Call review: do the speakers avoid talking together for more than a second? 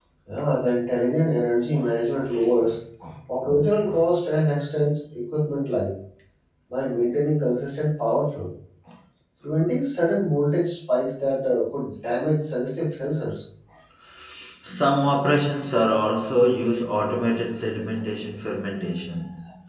Yes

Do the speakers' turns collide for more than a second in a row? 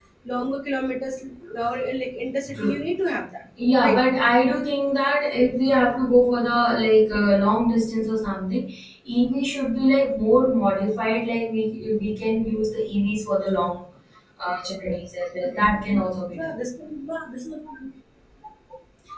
No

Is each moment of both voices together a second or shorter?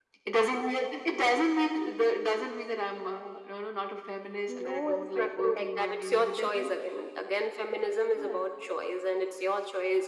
No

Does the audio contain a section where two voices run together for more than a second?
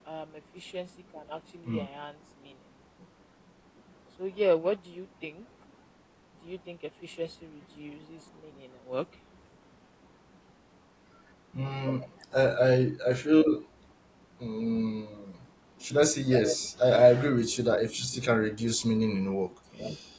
No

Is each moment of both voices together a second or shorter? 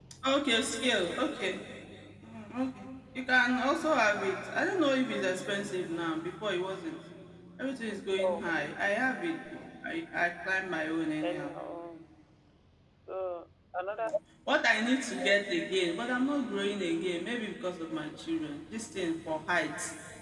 Yes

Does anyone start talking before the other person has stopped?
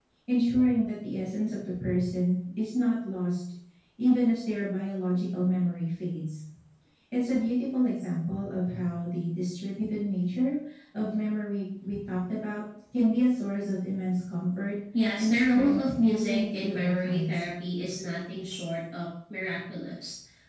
Yes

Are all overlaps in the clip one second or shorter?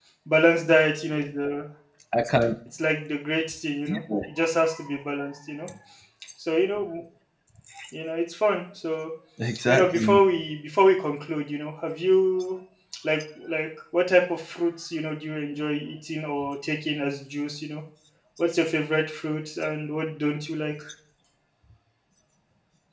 Yes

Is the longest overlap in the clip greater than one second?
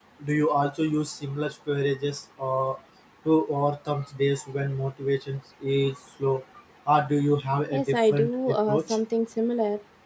Yes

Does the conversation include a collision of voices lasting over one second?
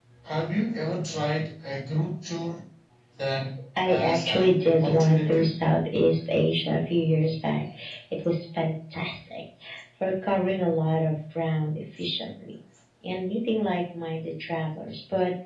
Yes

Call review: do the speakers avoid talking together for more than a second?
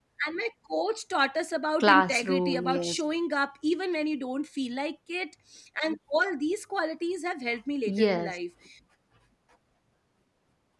No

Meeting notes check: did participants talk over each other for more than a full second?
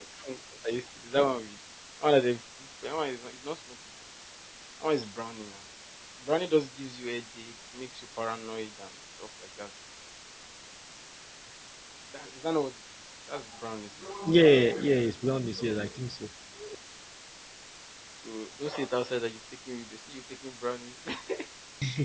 No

